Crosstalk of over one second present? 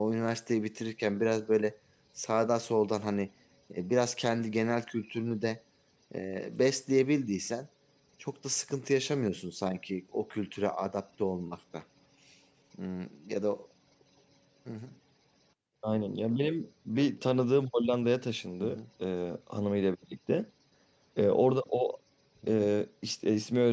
No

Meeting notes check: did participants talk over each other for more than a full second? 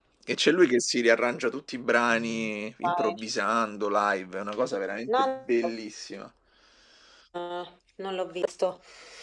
No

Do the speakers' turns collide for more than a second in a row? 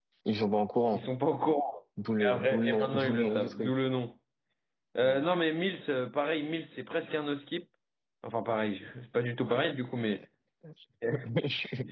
Yes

